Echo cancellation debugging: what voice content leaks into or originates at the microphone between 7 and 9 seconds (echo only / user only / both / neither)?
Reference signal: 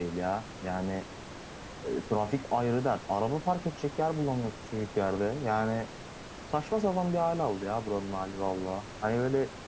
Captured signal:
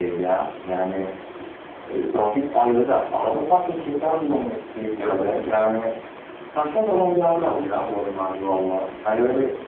echo only